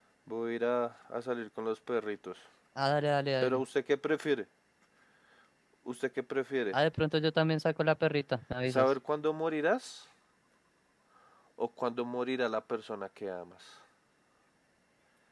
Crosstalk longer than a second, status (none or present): none